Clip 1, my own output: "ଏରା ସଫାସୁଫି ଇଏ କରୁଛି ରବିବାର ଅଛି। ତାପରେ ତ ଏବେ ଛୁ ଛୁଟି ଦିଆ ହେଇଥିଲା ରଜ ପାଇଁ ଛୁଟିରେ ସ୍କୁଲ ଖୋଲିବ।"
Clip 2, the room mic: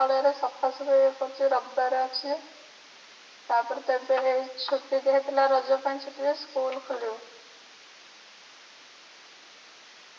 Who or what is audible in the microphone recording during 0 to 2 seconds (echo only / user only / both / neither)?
echo only